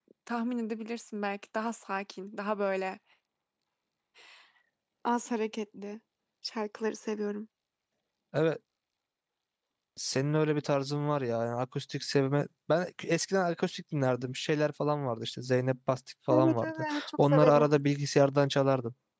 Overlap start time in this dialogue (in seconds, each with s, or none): 16.3 s